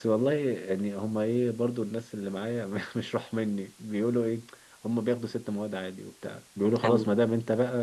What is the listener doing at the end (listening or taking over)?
listening